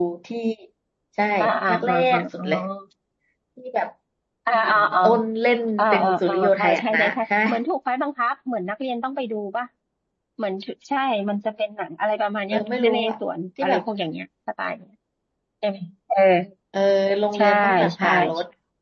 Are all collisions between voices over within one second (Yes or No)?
No